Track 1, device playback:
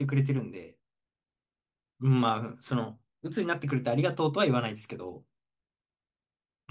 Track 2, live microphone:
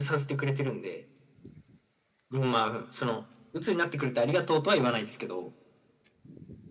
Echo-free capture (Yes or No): No